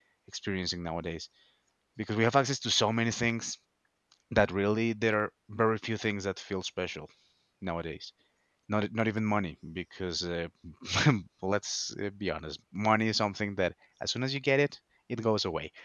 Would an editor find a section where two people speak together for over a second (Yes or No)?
No